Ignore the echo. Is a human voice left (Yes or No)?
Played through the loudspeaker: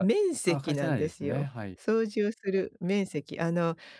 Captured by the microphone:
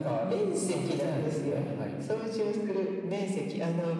No